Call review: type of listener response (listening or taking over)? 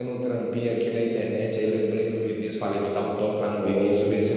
listening